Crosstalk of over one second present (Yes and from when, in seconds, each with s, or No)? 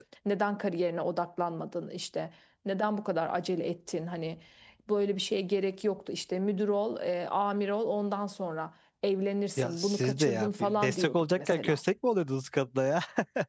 Yes, from 9.6 s